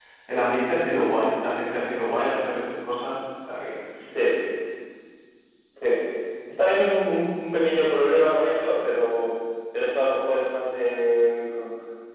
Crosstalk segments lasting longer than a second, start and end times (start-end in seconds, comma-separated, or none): none